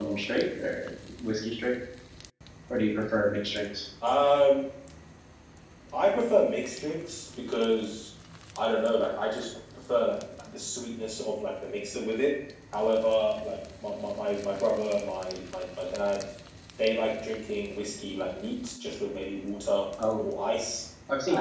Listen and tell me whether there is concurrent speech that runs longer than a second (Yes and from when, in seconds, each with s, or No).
No